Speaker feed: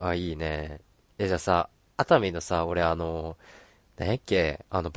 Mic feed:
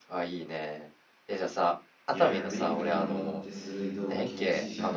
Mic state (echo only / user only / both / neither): both